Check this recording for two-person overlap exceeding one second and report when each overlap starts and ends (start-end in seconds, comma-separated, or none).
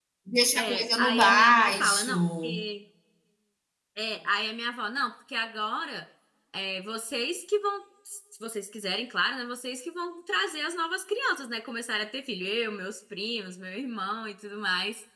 0.6-2.6